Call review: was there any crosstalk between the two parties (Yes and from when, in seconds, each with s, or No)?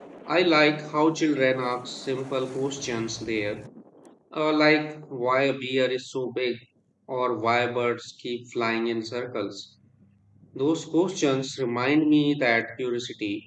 No